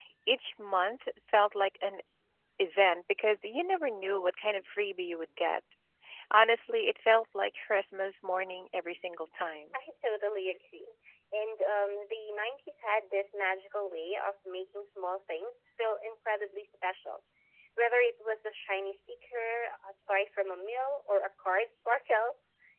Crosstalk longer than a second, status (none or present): none